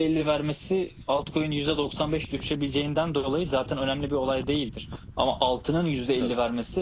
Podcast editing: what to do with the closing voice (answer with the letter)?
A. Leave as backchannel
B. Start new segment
A